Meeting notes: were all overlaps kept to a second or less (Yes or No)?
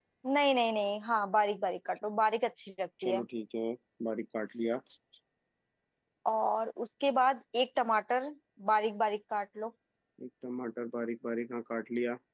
Yes